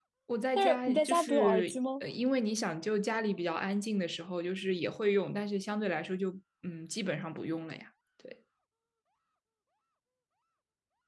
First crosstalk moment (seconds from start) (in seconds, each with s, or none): 0.6 s